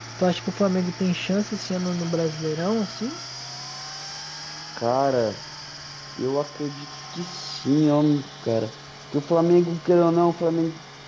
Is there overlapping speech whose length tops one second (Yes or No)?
No